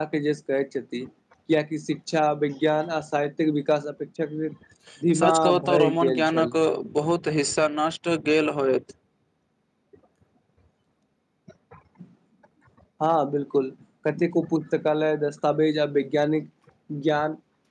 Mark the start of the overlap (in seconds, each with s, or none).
5.2 s